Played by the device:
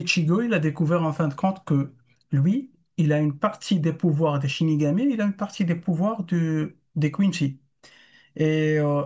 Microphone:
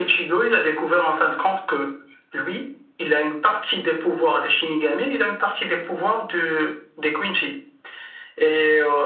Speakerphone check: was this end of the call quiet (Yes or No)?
Yes